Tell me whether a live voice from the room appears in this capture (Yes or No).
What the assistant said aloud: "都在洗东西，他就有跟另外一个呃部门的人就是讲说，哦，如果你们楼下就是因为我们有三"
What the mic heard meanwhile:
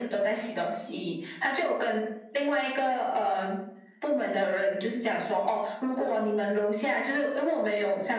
No